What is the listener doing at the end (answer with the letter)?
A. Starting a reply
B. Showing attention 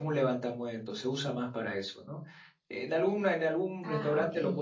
B